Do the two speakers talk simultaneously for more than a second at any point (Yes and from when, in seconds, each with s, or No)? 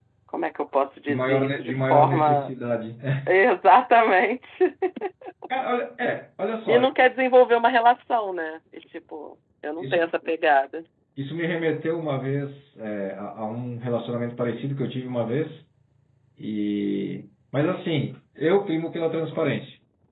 Yes, from 1.1 s